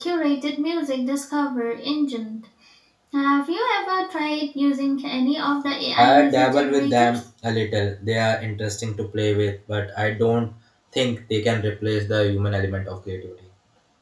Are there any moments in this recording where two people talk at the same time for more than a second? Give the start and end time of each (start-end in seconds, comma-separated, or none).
6.0-7.2